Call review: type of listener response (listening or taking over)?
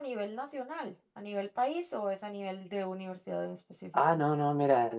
taking over